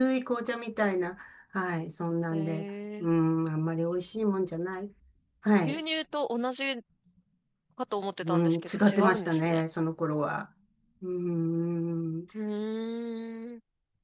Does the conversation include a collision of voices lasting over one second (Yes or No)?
Yes